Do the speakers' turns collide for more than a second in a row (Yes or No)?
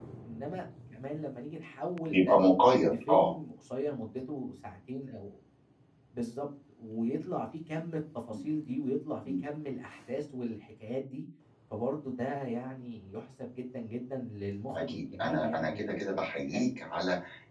Yes